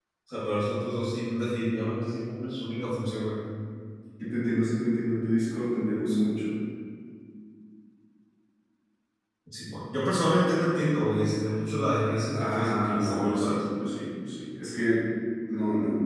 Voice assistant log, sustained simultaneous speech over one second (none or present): present